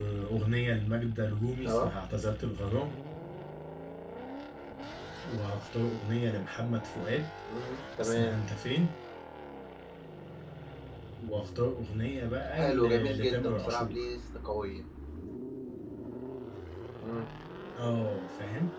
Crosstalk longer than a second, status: present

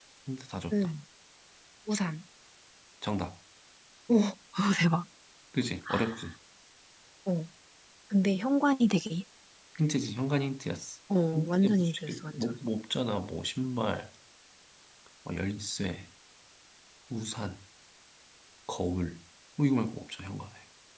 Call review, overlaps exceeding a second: present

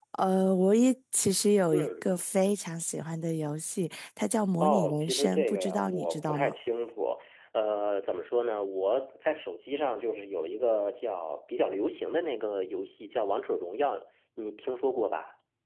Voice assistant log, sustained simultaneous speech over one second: present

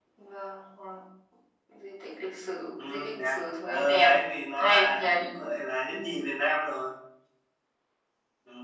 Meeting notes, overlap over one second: present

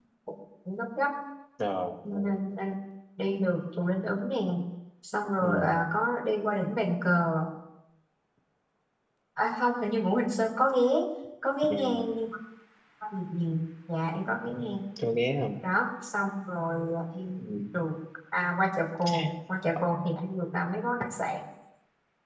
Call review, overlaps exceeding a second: none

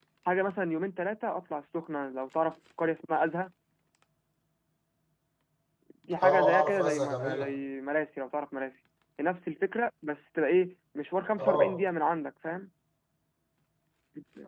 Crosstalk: present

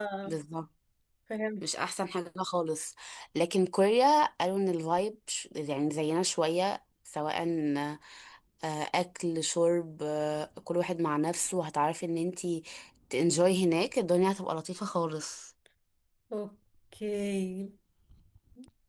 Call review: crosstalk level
none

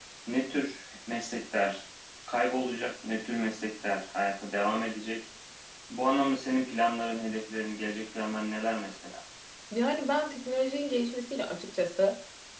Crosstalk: none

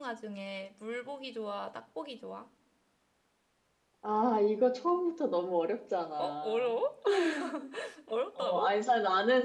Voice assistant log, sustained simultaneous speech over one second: none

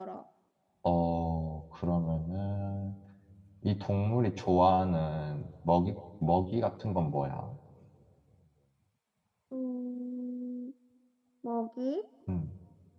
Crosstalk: none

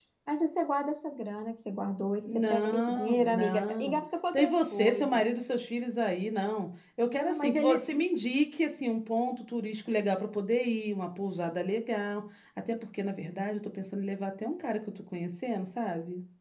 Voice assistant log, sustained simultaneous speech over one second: present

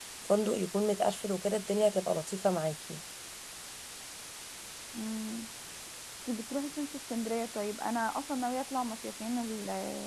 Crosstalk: none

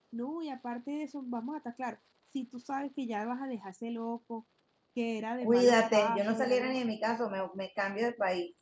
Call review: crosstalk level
present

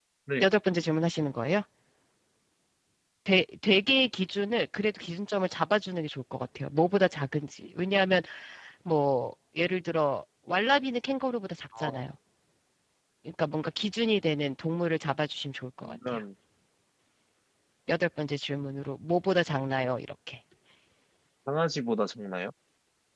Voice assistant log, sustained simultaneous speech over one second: none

